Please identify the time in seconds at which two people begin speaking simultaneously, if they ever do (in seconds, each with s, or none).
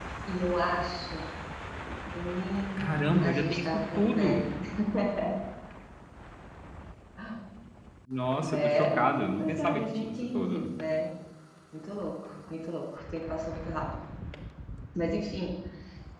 2.8 s